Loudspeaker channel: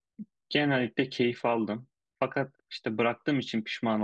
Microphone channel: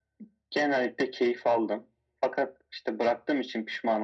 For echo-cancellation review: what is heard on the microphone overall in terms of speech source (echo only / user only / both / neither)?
echo only